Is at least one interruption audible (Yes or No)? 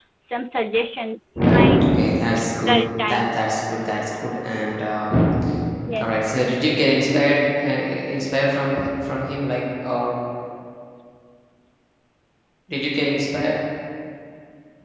Yes